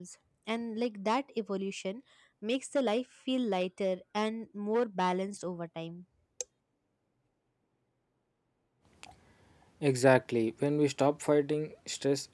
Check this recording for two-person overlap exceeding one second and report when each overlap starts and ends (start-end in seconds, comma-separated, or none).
none